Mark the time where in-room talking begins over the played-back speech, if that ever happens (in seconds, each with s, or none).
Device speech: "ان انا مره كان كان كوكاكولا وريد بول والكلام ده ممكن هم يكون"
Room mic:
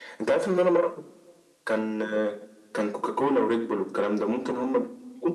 none